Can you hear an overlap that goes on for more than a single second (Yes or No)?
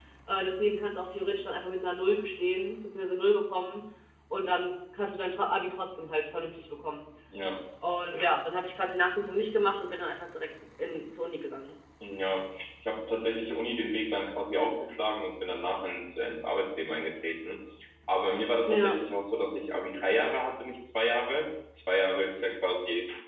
No